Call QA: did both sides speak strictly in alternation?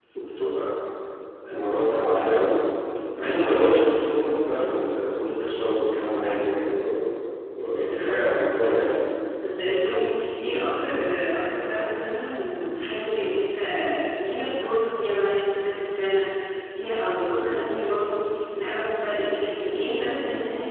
Yes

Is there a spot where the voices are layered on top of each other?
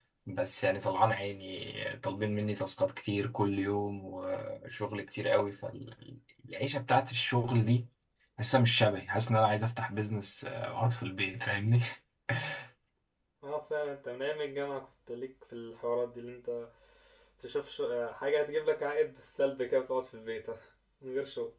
No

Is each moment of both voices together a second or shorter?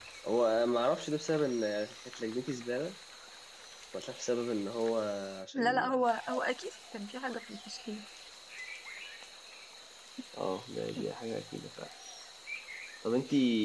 Yes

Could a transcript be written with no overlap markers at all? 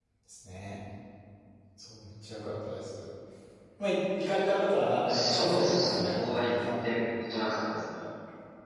No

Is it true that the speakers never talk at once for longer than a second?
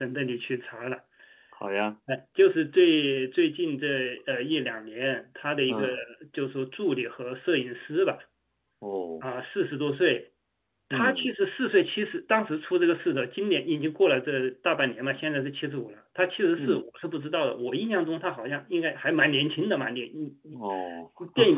Yes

